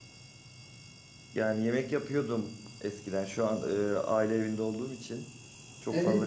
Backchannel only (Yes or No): No